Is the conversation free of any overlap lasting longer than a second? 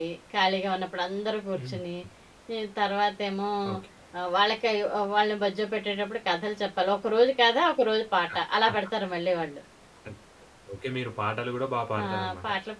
Yes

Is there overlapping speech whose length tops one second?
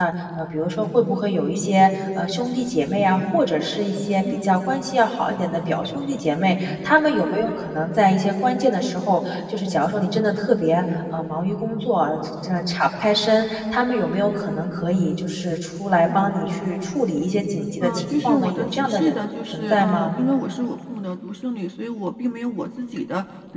Yes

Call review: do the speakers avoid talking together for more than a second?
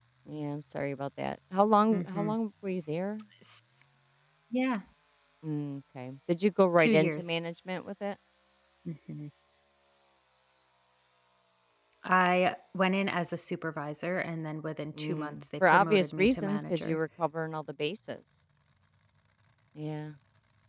No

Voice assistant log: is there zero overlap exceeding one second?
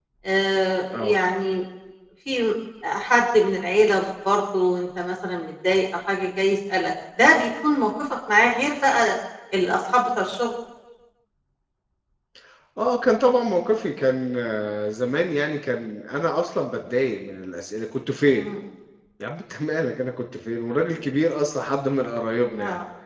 Yes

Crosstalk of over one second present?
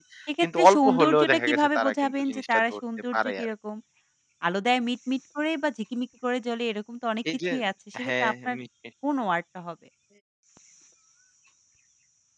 Yes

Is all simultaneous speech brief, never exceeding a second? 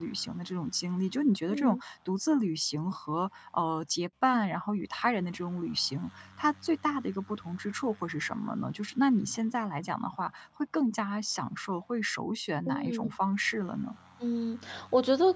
Yes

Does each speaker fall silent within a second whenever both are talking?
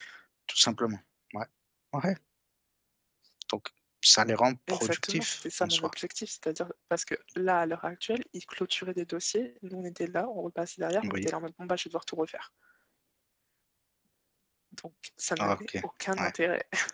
No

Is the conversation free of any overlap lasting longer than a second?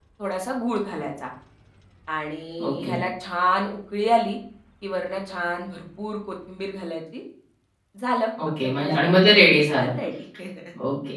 No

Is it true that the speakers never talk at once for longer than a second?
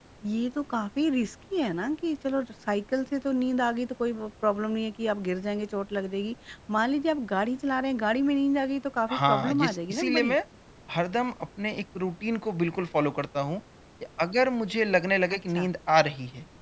No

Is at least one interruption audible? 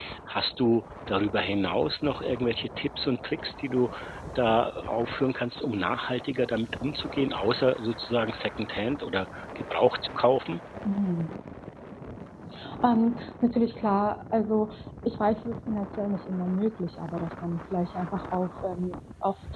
No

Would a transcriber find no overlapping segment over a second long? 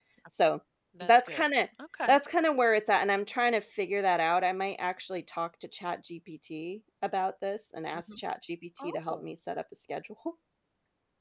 Yes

